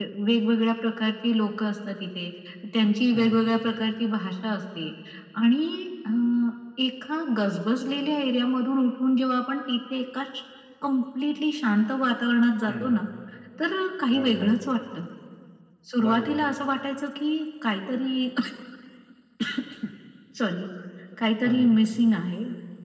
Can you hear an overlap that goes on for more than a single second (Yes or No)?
No